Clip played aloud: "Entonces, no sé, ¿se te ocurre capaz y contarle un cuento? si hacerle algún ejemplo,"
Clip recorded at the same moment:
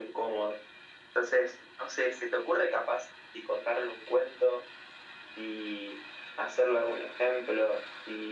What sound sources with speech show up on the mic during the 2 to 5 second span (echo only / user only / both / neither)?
echo only